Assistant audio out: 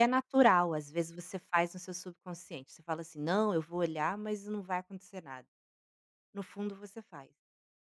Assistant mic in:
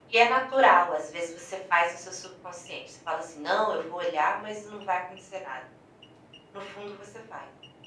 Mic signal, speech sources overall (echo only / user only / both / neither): echo only